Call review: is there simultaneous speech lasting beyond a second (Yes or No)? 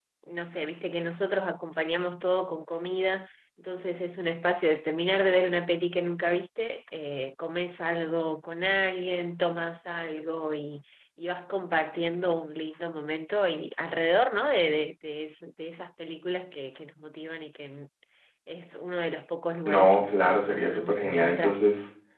Yes